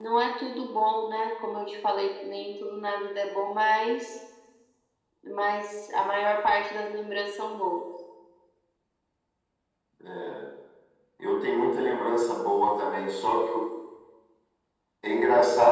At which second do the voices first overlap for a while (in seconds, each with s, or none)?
none